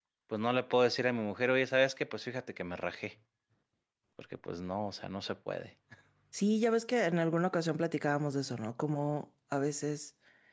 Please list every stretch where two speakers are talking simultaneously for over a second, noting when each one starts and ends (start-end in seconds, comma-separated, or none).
none